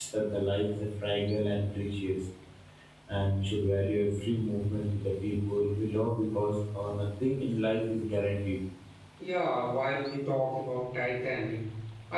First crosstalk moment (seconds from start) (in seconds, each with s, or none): none